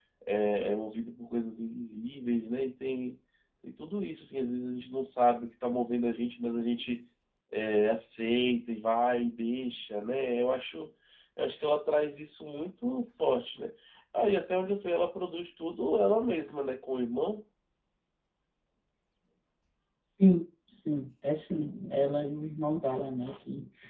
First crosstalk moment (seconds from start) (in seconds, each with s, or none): none